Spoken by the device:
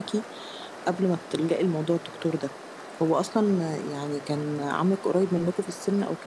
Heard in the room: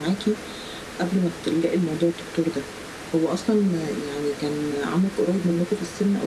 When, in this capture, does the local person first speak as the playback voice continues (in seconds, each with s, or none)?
none